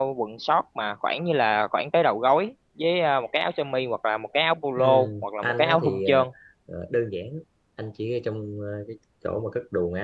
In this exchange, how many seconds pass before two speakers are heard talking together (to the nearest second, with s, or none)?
5 s